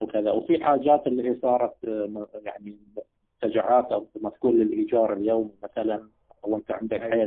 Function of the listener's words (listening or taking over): listening